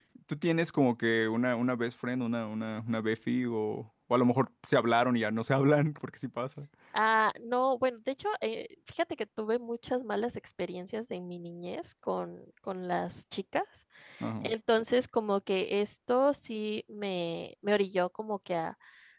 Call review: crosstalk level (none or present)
none